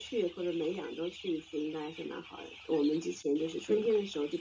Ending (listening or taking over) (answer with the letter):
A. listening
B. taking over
A